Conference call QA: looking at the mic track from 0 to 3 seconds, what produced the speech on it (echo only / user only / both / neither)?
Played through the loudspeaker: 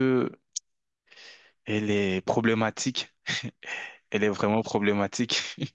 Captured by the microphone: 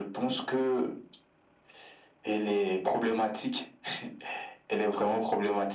echo only